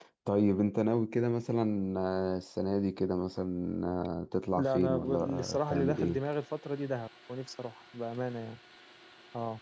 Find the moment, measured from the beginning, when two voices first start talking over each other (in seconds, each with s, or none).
4.5 s